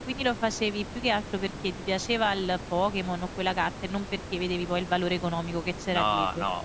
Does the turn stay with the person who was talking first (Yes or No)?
No